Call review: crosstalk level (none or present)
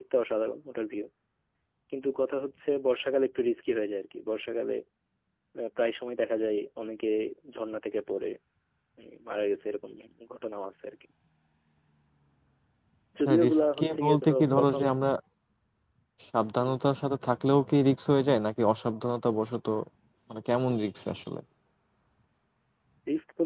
present